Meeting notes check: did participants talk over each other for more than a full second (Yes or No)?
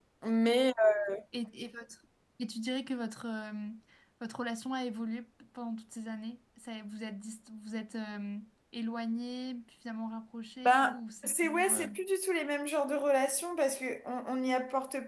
Yes